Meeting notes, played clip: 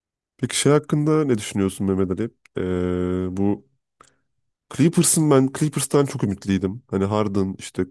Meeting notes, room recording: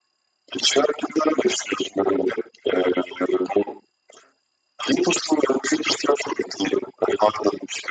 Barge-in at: none

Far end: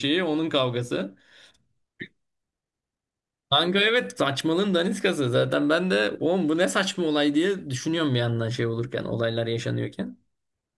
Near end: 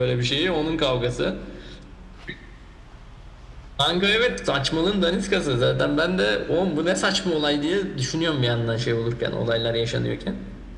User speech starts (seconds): none

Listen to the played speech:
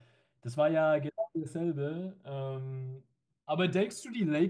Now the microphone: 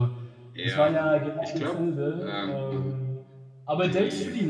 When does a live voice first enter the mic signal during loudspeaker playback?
1 s

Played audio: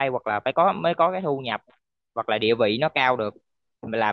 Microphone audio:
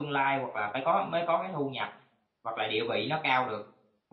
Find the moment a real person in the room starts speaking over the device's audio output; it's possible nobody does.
none

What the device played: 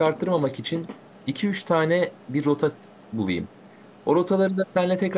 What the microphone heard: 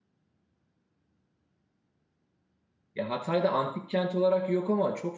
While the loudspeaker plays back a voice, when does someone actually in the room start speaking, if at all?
3 s

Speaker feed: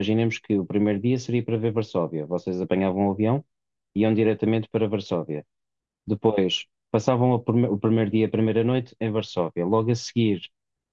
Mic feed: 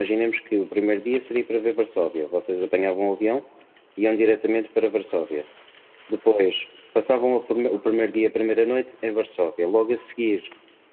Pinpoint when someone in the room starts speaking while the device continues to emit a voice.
none

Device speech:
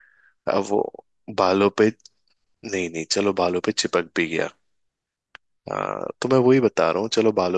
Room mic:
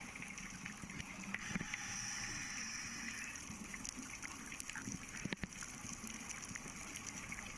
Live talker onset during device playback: none

